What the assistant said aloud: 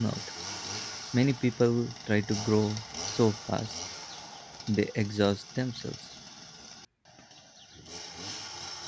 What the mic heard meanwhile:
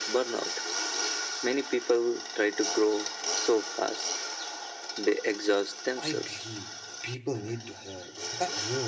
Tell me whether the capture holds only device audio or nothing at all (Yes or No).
No